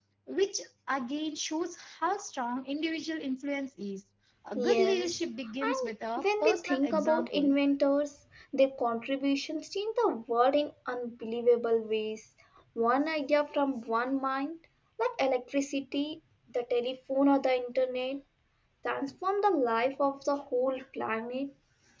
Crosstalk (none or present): present